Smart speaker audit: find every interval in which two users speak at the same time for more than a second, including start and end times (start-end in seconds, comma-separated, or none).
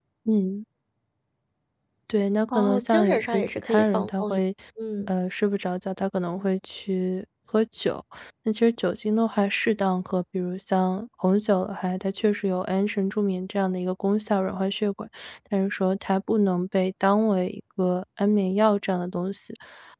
2.5-4.4